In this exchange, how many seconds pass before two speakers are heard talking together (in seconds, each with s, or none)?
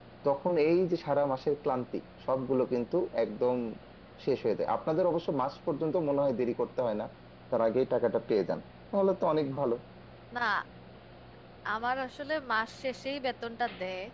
none